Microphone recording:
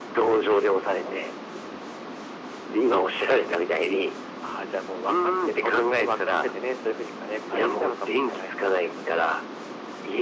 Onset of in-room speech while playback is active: none

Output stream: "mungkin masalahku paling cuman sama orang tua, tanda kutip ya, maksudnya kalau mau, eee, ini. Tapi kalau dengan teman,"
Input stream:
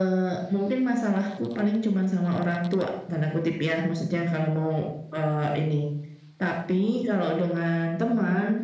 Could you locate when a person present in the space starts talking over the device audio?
none

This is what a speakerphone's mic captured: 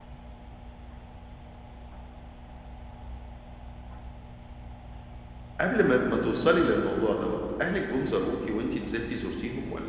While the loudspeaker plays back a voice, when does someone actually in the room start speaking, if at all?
5.6 s

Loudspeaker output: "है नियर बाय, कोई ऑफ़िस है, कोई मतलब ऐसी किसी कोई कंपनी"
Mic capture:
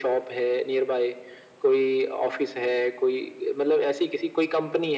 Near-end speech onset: none

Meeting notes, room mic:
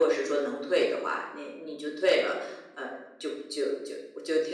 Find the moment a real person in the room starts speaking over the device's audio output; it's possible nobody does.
none

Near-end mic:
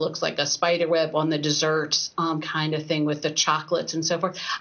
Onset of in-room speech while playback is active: none

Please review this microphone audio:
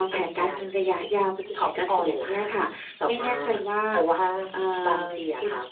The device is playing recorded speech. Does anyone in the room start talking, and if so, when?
none

